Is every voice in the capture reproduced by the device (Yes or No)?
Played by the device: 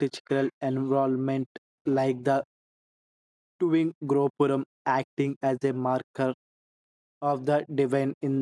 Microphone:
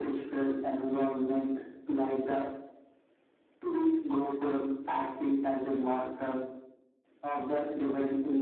Yes